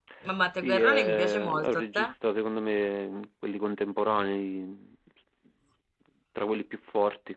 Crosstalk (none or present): present